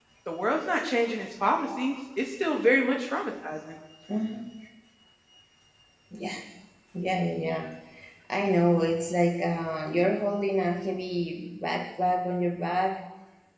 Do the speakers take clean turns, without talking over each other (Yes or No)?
Yes